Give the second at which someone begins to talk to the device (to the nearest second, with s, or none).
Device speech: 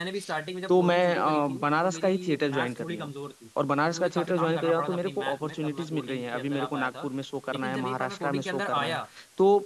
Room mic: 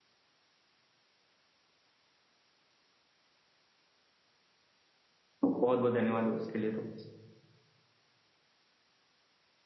5 s